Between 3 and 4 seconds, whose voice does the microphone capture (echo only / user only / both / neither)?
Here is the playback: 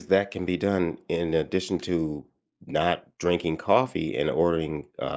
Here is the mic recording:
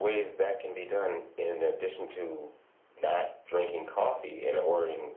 echo only